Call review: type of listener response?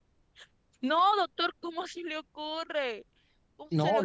taking over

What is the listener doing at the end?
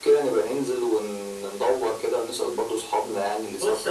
taking over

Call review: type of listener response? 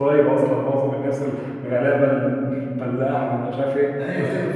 taking over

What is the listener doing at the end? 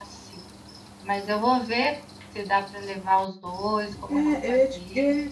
taking over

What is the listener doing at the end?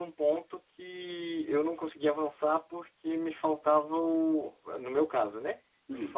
listening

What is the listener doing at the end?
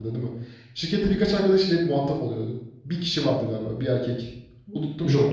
taking over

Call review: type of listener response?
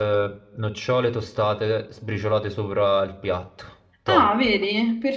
taking over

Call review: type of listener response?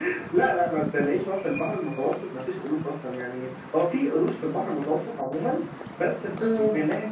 listening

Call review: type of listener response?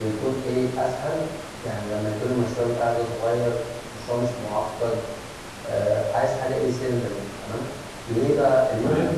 listening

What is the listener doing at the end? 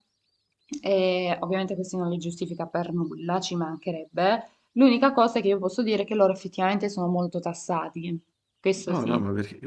taking over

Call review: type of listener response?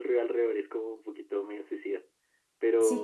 taking over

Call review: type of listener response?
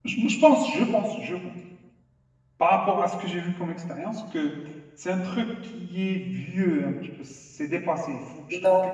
listening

